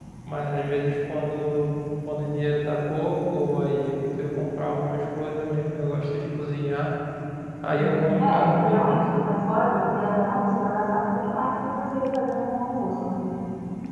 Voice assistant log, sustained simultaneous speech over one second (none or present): present